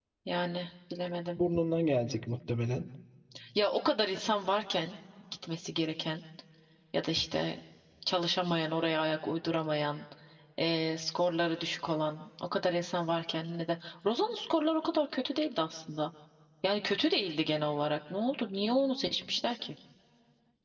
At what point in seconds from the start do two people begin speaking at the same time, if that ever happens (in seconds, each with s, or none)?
none